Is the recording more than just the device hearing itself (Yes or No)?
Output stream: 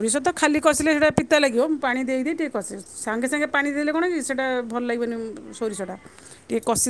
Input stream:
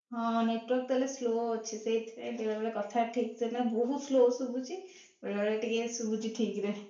Yes